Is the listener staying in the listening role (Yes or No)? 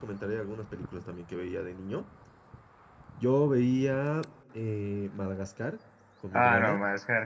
No